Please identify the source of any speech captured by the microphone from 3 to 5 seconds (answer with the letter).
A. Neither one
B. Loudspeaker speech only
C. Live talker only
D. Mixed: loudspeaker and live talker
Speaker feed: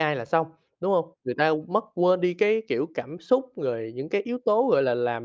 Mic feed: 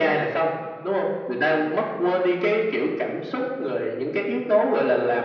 B